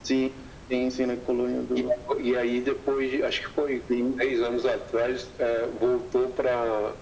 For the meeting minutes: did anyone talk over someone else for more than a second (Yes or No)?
No